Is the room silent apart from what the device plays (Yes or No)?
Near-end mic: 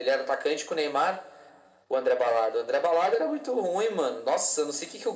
Yes